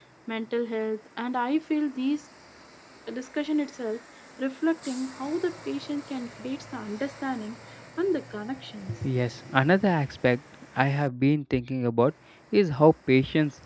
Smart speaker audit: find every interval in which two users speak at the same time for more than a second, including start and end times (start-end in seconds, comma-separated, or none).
none